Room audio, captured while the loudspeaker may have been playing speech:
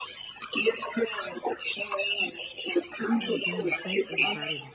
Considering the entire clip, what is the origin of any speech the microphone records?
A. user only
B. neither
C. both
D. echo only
C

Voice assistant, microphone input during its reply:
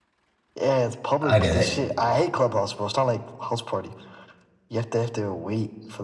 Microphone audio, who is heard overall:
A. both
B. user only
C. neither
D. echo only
A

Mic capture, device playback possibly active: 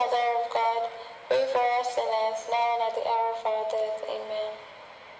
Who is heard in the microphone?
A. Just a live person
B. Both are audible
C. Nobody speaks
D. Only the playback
D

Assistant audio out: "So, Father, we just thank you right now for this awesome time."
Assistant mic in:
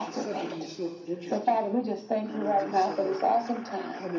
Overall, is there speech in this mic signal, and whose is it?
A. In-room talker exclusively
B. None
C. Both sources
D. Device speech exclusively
C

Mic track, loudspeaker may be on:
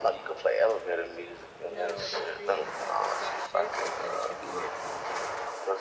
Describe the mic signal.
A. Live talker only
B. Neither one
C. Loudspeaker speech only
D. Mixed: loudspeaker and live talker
D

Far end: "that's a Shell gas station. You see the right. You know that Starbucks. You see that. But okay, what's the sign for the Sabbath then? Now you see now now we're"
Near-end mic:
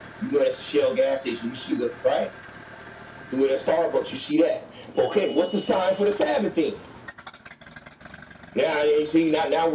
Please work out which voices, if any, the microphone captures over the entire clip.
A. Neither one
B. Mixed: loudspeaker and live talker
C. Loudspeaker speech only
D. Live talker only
C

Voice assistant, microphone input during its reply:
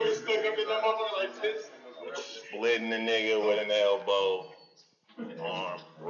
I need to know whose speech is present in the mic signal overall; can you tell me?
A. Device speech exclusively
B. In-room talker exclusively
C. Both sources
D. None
C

